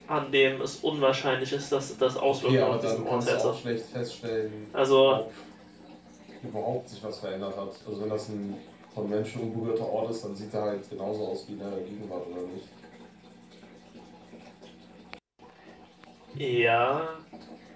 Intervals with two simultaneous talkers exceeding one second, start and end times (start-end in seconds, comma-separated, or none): 2.3-3.5